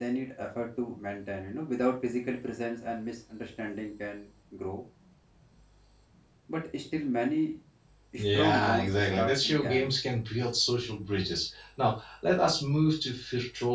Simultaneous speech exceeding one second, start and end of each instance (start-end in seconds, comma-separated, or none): 8.2-9.9